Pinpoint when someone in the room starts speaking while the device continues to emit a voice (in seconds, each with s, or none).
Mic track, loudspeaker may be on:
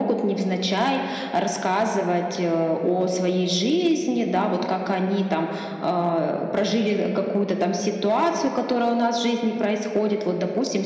none